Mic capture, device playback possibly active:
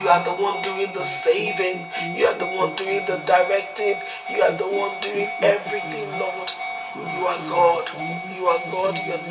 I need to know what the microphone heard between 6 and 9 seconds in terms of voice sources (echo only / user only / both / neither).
both